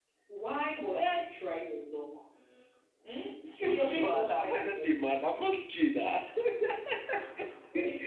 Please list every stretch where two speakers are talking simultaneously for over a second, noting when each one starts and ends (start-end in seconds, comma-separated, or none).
3.6-4.9